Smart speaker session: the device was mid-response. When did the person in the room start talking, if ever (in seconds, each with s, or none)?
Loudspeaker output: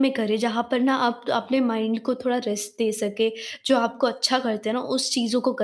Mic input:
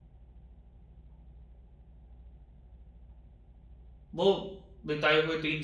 4.1 s